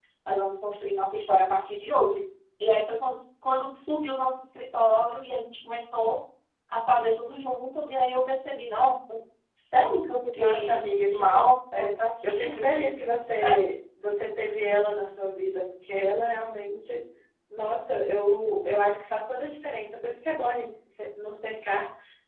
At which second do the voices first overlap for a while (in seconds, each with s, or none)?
10.3 s